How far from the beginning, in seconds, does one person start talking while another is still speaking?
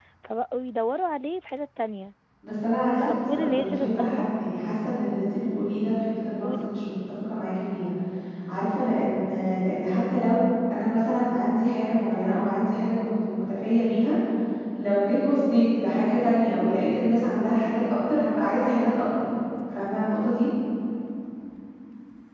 3 s

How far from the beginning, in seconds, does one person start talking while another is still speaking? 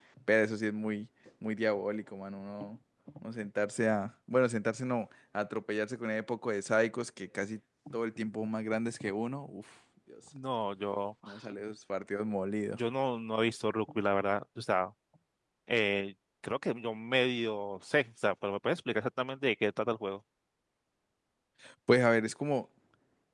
none

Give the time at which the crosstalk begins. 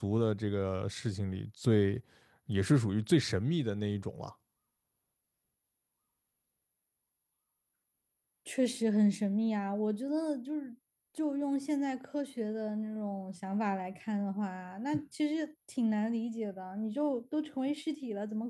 none

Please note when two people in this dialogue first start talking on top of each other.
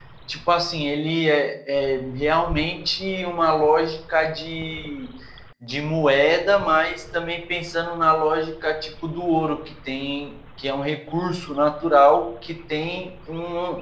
none

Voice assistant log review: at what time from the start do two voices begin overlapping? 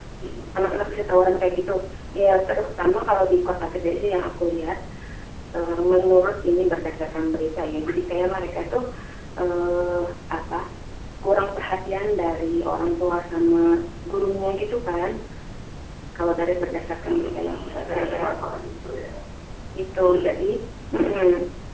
17 s

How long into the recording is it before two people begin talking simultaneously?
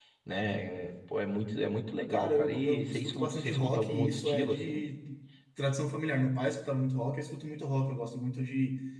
2 s

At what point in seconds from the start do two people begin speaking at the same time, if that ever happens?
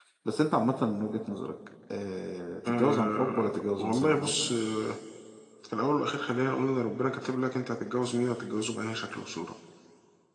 3 s

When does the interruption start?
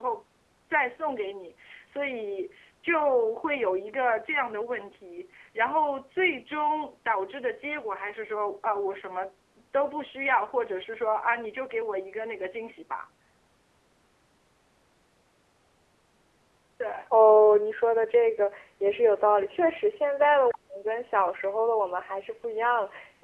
none

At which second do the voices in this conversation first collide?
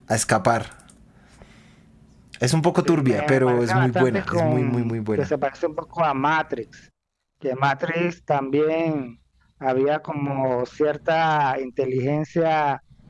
3 s

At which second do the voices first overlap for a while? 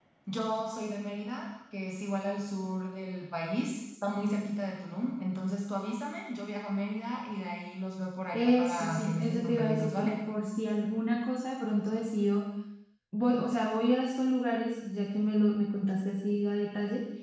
8 s

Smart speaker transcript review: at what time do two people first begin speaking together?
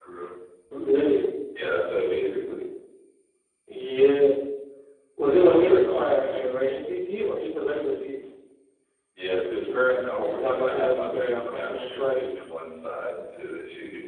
5 s

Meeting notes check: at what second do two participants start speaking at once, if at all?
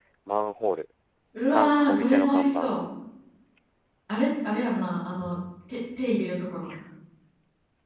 1 s

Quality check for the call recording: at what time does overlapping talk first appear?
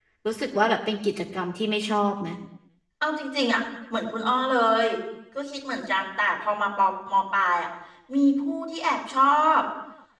none

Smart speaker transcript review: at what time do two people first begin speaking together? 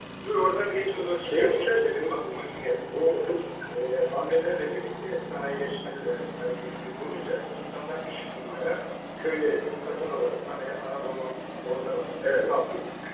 1 s

